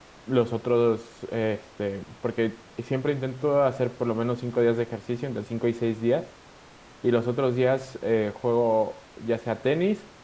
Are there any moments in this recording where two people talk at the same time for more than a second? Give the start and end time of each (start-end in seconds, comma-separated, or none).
none